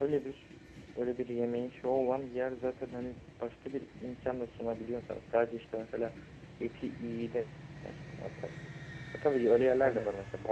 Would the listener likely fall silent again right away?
Yes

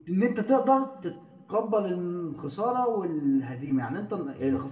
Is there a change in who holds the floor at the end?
No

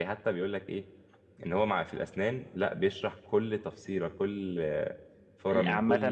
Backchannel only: No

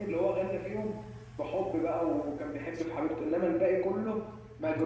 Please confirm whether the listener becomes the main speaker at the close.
No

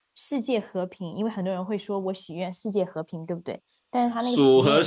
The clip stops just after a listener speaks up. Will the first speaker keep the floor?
No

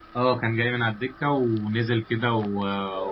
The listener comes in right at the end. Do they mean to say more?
No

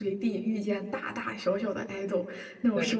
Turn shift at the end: No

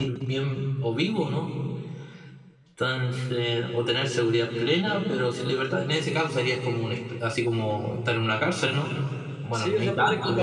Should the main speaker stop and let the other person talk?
Yes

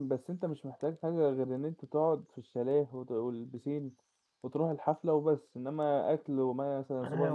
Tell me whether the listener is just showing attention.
No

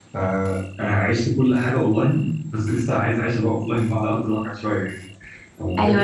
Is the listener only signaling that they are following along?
No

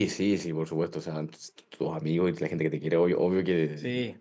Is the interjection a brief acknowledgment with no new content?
Yes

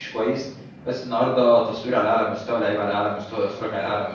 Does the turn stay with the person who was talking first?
Yes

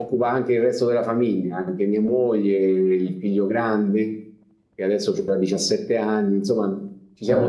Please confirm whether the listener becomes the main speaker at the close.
No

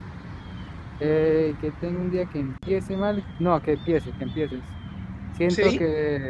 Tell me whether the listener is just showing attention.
Yes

